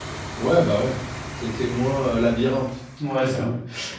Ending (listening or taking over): taking over